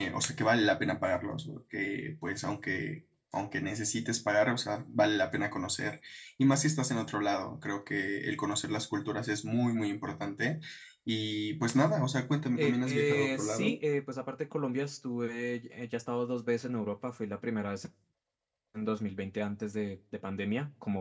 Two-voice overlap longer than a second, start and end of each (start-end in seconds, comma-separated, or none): 12.6-13.8